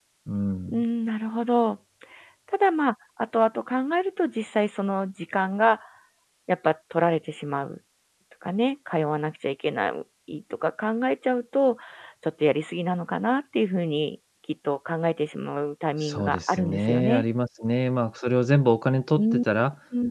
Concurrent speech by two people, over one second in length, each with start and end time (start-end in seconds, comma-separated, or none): 16.0-17.2